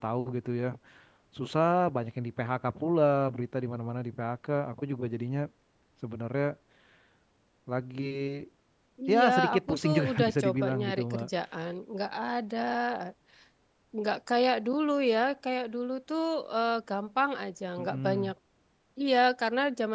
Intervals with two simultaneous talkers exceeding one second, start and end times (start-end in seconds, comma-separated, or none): 9.1-11.3